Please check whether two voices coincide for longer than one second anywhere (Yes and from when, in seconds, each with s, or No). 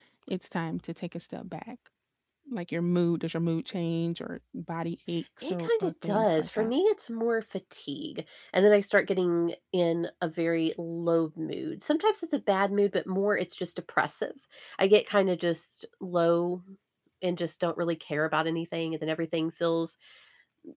Yes, from 5.4 s